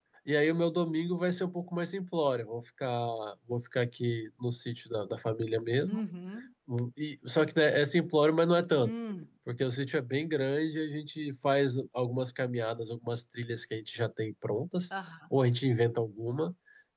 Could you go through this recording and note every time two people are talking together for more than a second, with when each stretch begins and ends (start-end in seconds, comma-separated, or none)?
none